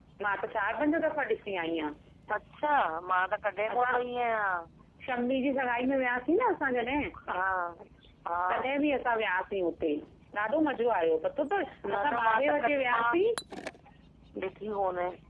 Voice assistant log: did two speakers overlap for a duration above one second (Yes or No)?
Yes